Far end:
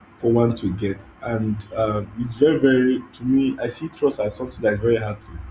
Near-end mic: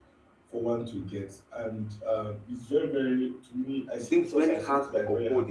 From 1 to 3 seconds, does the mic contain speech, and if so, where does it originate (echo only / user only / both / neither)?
echo only